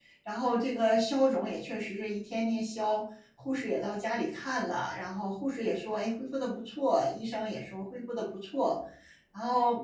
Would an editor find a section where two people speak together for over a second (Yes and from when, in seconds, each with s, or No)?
No